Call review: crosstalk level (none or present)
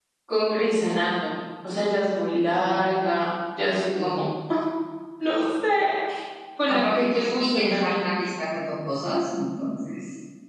present